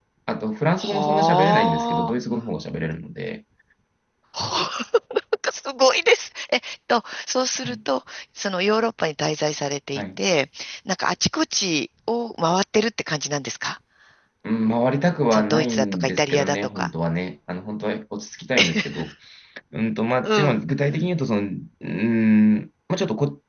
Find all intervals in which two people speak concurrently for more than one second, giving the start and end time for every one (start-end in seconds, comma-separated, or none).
0.8-2.1, 15.3-16.9